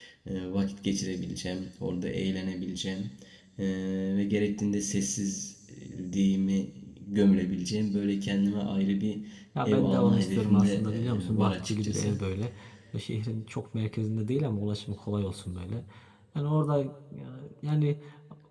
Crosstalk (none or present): present